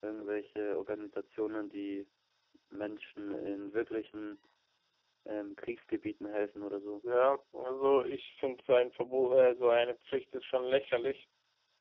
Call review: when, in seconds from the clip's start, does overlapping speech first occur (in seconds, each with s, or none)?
none